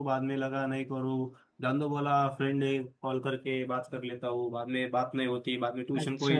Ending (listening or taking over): taking over